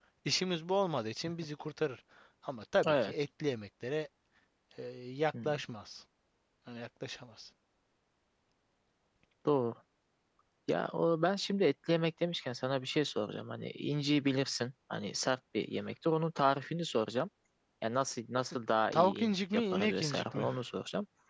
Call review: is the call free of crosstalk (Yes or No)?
No